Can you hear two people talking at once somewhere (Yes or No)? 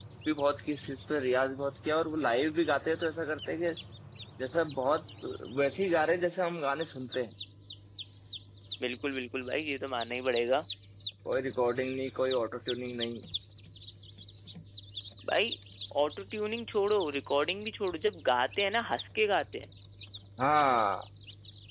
No